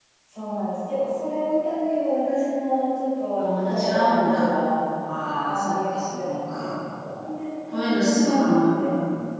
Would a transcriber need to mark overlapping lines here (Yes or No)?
Yes